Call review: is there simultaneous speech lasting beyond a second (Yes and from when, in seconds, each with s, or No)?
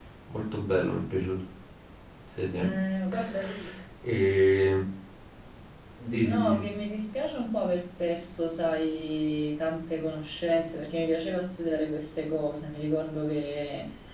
No